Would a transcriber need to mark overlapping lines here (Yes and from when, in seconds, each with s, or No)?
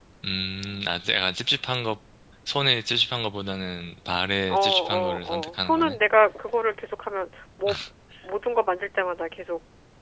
Yes, from 4.5 s